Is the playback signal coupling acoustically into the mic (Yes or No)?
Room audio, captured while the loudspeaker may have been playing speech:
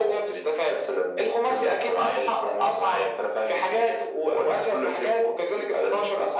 Yes